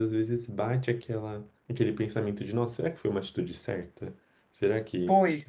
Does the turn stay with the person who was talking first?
No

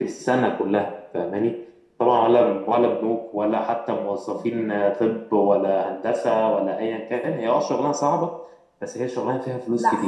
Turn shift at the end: Yes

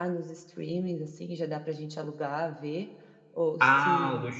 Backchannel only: No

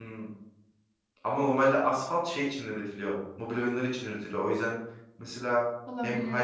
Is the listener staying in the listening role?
Yes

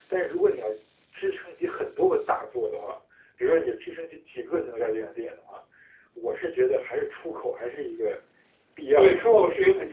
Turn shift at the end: Yes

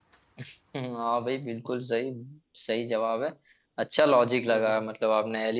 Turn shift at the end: No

